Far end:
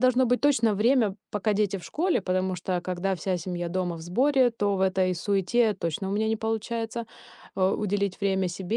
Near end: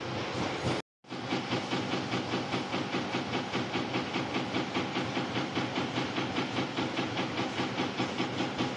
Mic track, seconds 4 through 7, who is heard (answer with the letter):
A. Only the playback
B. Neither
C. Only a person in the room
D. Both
B